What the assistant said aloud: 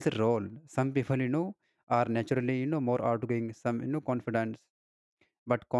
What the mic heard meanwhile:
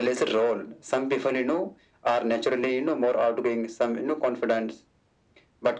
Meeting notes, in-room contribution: none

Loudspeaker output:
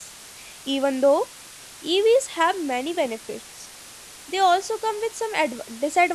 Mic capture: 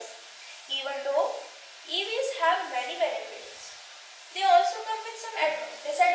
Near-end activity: none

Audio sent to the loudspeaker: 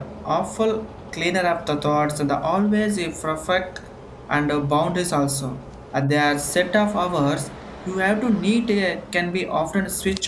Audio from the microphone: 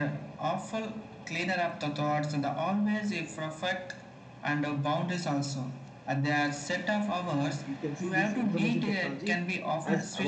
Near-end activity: present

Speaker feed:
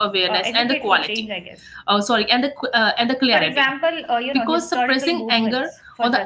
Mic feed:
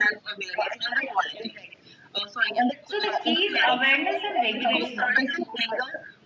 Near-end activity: present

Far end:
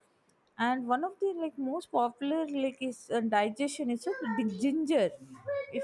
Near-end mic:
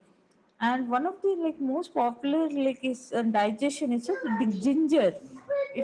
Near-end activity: none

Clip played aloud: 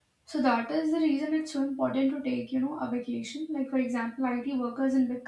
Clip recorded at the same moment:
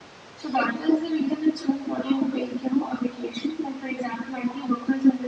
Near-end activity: none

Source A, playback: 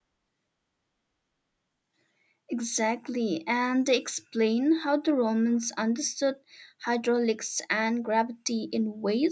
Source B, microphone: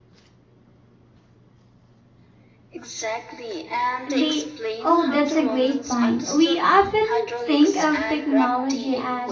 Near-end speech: present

